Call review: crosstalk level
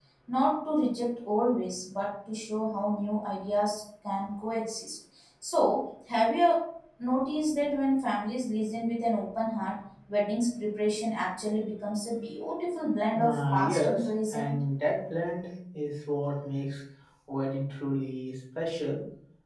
present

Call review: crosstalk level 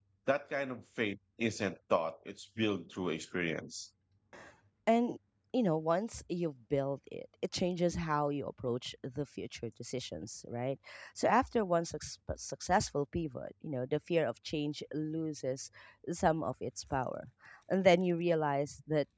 none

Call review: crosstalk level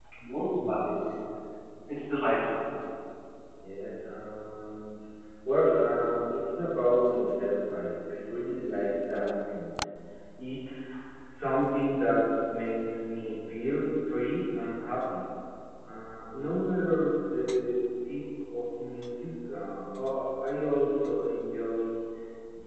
none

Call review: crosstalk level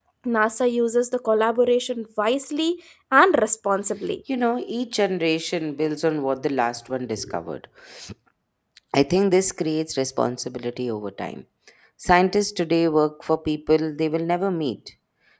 none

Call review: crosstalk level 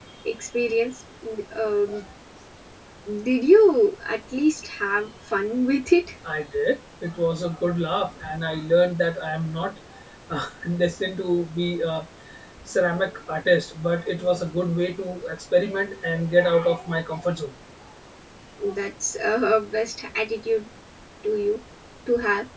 none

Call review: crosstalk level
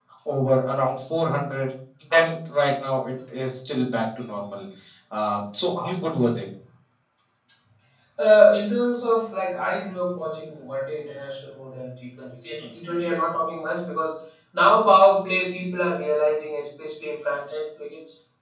none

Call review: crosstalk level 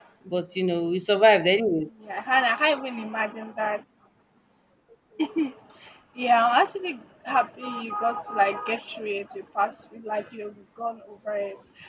none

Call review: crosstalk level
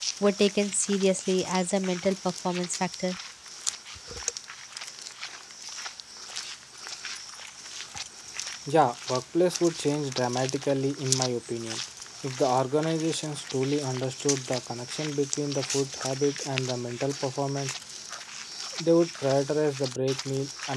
none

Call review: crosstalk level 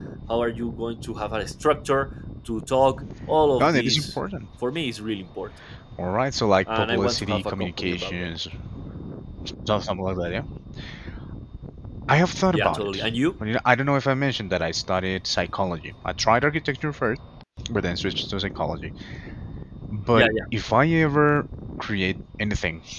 present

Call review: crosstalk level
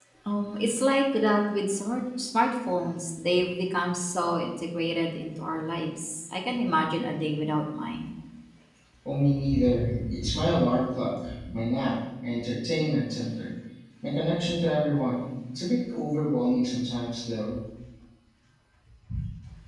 none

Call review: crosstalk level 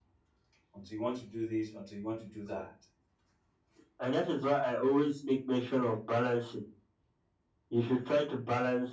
none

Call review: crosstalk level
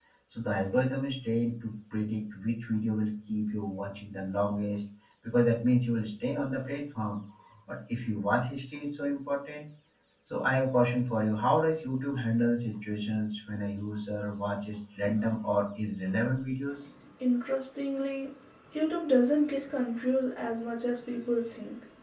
none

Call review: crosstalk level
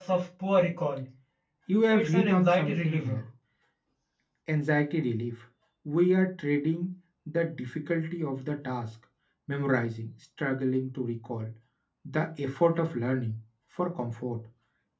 present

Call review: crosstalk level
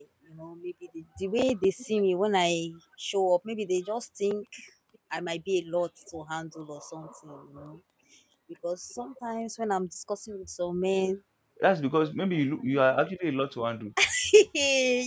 none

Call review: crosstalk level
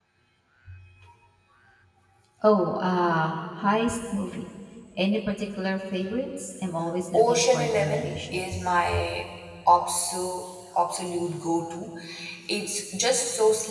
present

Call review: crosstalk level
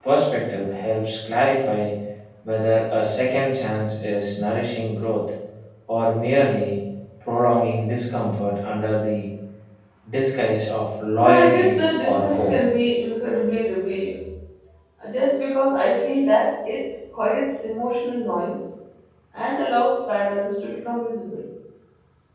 present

